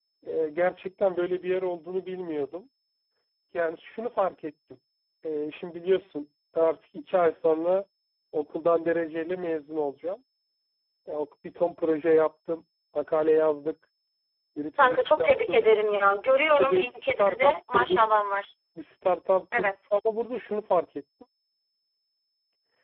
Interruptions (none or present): present